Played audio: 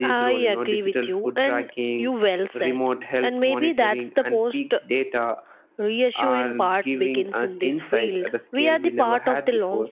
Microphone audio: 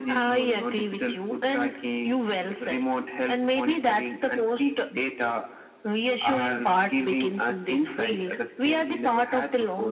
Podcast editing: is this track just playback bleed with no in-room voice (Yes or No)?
Yes